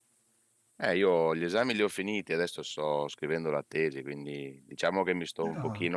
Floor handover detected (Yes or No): No